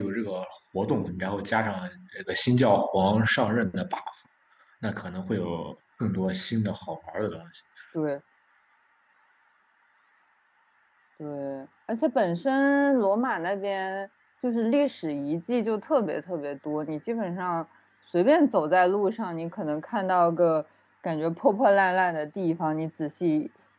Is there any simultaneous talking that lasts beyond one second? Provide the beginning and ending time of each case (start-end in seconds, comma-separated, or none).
none